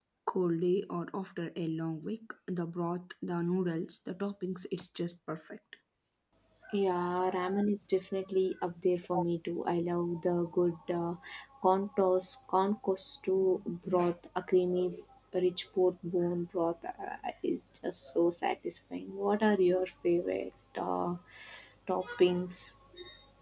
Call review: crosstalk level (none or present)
none